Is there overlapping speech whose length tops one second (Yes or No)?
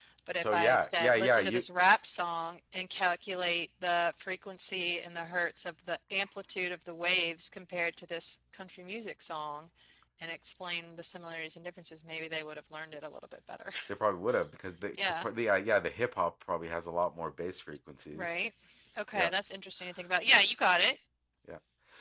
Yes